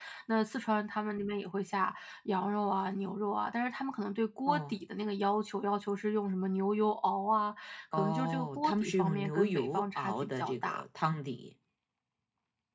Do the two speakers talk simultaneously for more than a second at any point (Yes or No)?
Yes